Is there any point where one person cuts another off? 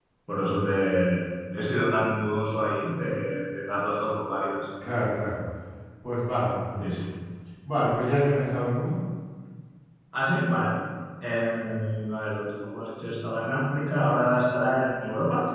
No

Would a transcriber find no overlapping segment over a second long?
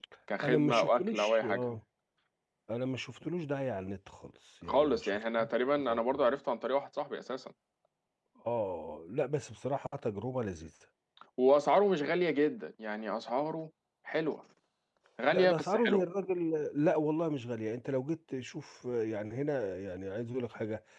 No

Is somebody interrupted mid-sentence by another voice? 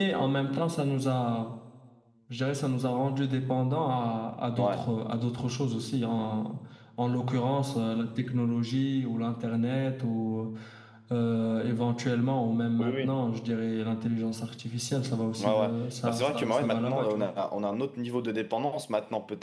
Yes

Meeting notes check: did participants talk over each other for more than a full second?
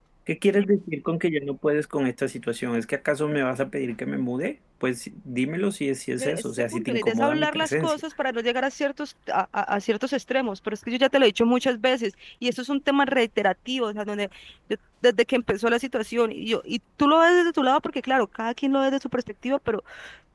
Yes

